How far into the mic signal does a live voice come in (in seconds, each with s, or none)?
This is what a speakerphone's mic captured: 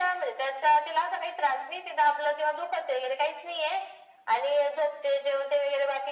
none